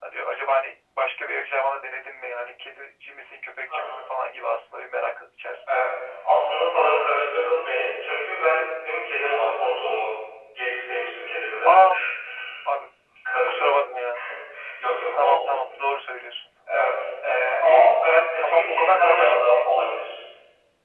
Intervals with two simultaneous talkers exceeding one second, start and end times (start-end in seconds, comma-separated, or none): 18.1-19.6